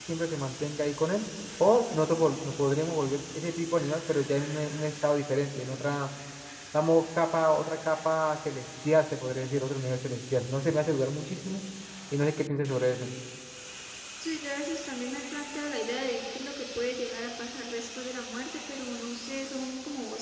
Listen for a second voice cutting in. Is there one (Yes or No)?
No